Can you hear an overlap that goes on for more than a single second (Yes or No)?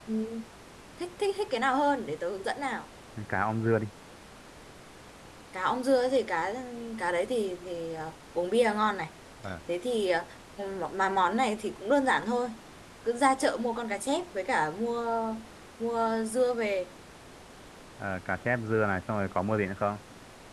No